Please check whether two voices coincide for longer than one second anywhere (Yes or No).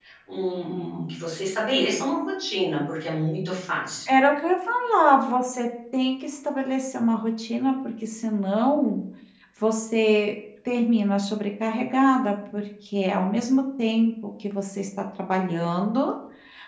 No